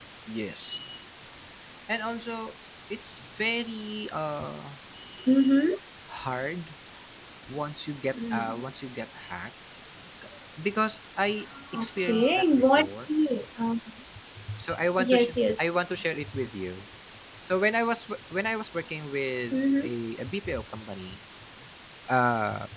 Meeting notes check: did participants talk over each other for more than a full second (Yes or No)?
Yes